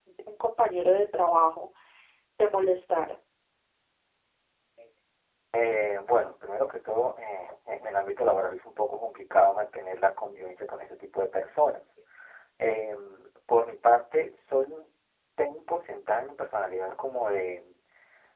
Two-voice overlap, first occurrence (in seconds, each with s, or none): none